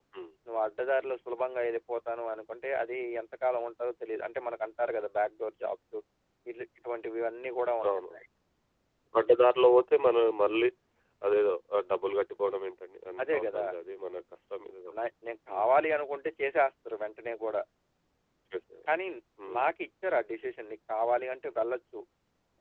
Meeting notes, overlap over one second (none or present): none